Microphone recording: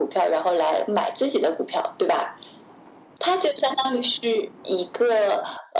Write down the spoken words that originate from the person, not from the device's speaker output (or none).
none